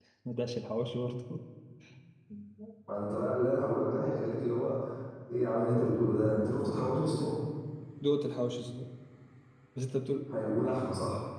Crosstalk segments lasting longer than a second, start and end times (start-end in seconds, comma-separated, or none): none